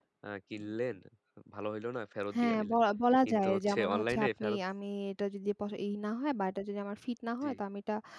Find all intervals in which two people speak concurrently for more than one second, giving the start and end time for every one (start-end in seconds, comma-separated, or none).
3.3-4.6